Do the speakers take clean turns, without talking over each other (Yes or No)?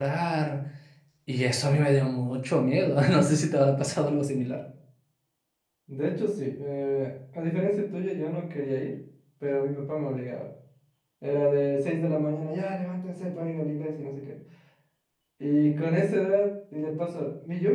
Yes